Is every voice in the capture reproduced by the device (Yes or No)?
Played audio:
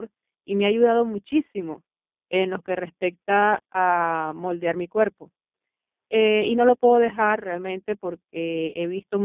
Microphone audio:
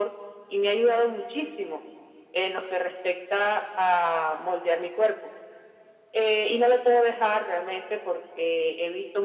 Yes